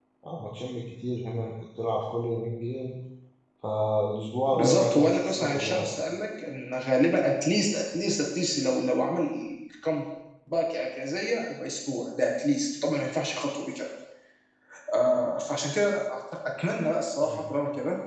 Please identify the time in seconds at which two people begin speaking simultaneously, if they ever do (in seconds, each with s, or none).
4.5 s